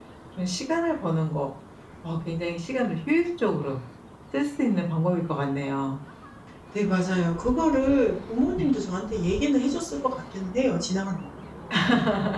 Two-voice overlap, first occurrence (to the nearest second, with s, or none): none